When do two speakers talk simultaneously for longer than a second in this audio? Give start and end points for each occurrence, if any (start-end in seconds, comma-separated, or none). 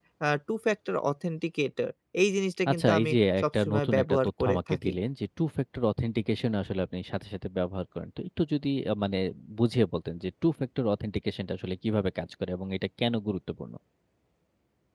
2.7-4.9